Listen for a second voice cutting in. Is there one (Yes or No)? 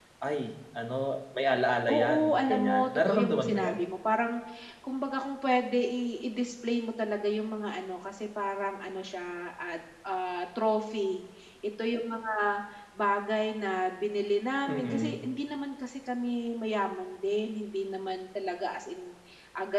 Yes